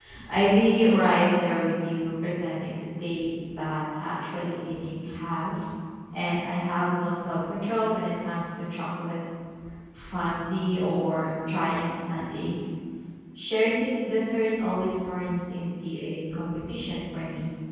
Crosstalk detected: No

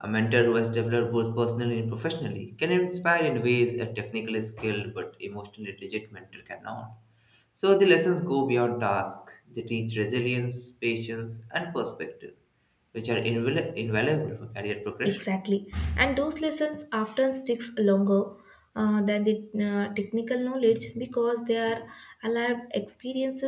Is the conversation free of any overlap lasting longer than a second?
Yes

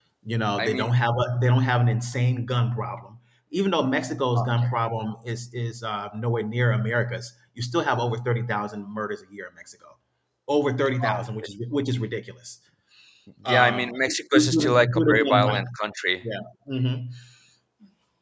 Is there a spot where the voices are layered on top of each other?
Yes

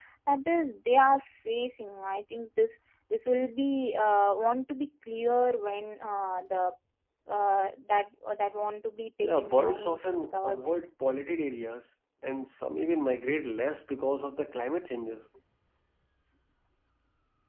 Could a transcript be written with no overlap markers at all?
No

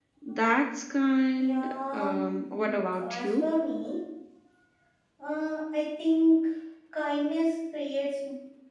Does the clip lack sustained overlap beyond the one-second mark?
No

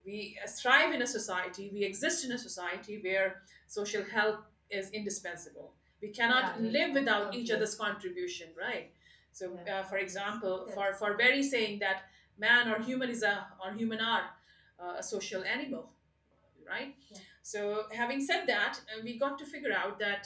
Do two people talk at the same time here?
Yes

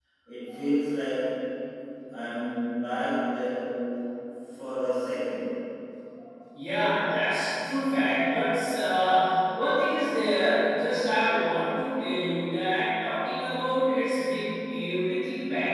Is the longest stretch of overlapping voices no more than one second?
Yes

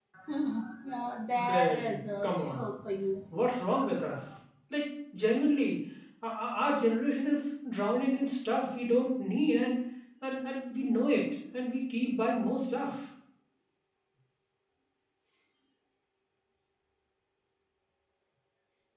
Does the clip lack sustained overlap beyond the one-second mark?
No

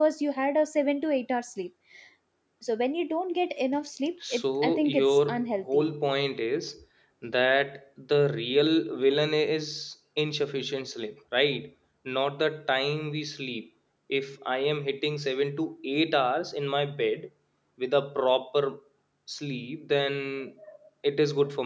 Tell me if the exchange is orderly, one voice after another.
No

